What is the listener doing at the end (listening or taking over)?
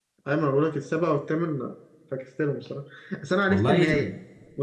listening